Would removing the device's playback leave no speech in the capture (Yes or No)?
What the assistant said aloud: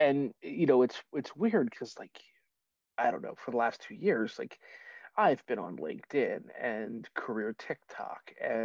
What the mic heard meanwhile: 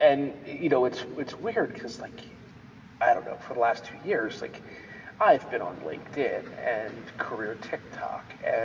Yes